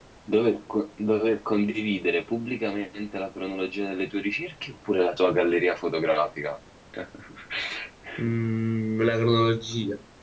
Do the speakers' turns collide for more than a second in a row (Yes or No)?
No